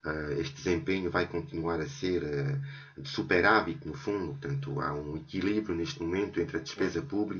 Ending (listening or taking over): listening